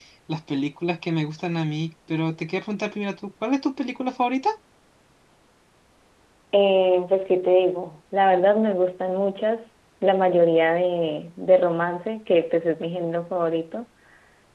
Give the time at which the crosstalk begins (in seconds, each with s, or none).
none